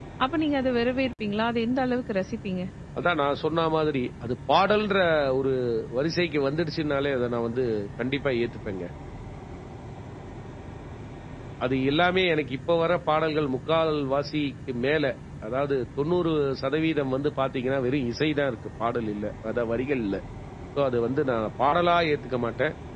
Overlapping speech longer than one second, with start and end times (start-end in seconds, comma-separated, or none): none